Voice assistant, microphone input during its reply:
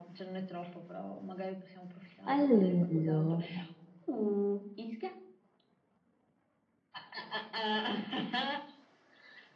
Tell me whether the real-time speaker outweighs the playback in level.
Yes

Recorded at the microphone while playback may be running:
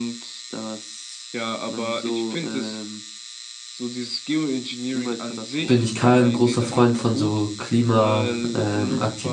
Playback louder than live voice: No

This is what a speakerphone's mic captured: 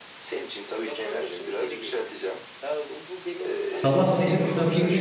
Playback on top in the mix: No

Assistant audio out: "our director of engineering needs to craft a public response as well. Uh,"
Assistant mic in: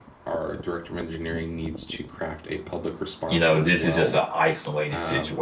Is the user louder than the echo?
Yes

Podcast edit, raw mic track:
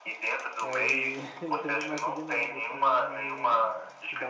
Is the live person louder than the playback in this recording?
No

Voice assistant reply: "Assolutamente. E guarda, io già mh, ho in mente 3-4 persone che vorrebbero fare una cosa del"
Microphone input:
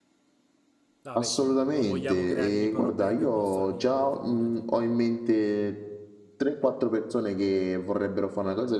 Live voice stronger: No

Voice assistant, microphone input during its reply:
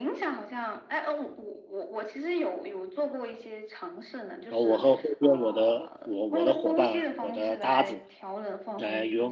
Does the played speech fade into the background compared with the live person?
Yes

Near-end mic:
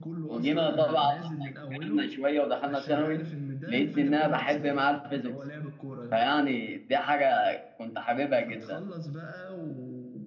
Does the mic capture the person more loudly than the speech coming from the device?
No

